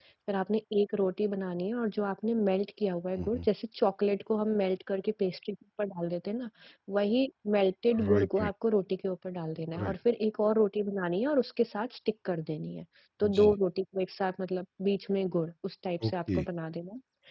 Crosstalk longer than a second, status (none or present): none